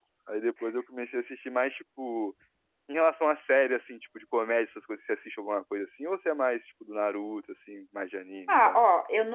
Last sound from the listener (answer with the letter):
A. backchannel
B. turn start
B